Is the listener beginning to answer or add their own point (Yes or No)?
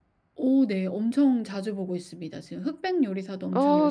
Yes